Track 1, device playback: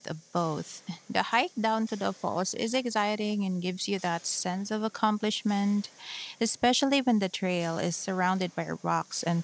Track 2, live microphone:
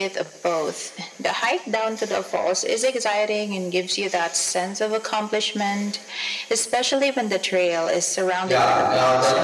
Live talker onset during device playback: 8 s

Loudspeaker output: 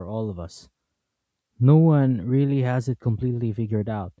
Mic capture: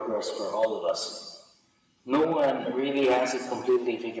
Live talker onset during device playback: none

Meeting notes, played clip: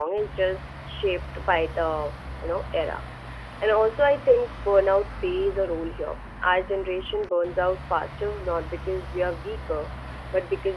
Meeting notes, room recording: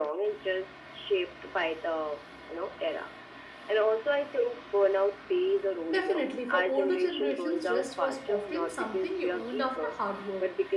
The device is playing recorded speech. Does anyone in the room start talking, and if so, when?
6 s

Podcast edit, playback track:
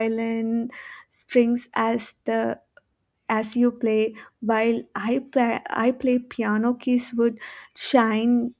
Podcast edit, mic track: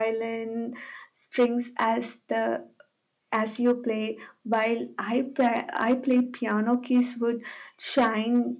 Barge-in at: none

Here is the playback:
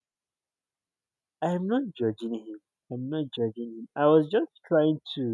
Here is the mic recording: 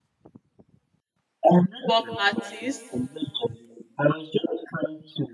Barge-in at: 2 s

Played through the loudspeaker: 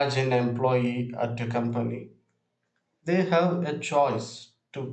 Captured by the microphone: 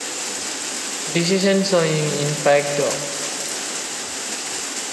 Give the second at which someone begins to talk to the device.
1 s

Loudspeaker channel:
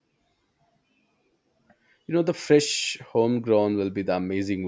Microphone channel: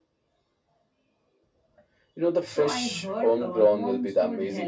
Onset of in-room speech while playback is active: 2 s

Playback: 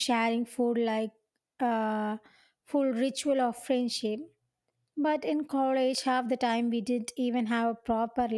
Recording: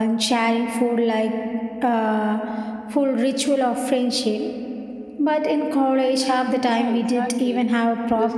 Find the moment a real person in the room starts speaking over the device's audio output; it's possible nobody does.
7 s

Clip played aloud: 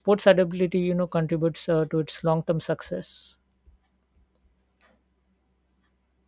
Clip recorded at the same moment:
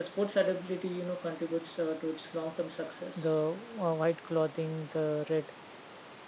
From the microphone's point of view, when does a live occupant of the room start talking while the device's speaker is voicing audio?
3 s

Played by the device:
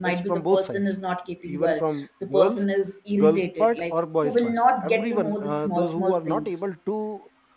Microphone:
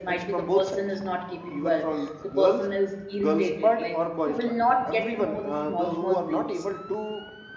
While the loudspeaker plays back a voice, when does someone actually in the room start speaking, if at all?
none

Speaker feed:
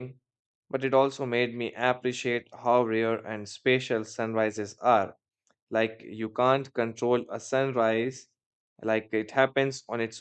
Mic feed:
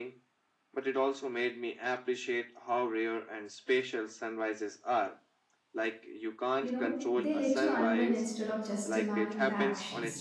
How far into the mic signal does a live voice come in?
7 s

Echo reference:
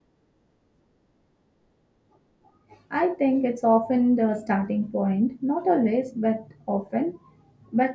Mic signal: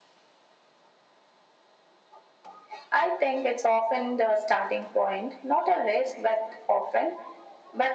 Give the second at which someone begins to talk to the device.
none

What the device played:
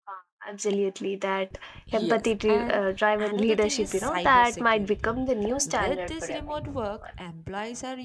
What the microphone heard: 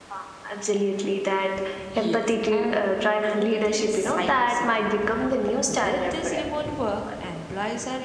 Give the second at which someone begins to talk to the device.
none

